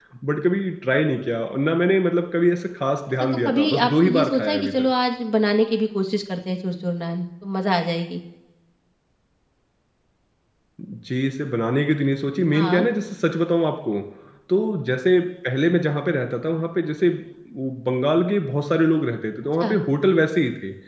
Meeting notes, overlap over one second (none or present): present